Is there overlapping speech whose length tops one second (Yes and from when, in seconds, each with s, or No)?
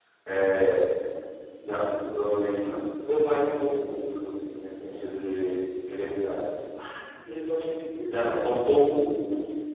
No